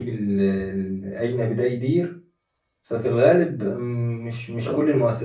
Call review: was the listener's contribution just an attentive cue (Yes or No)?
Yes